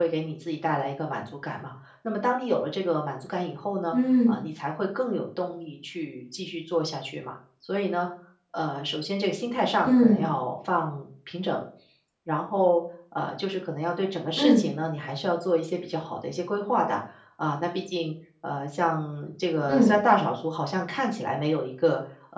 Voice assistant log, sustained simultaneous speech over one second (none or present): none